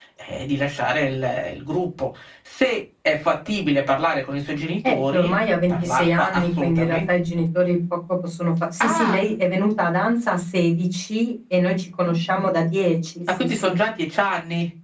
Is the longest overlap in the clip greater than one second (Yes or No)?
Yes